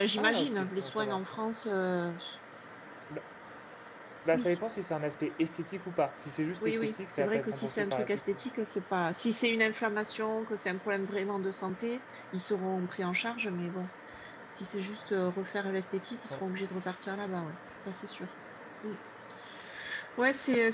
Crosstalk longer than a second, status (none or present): present